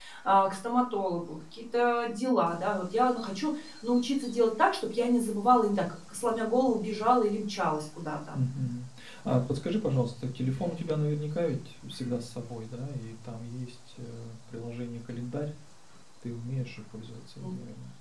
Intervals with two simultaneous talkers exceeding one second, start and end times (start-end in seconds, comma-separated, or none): none